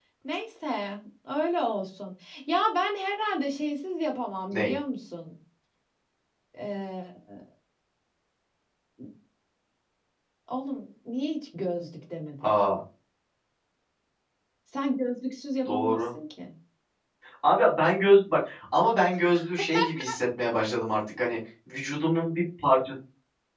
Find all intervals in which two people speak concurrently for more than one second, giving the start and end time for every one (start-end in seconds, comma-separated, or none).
none